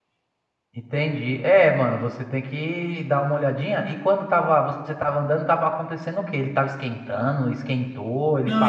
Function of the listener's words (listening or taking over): taking over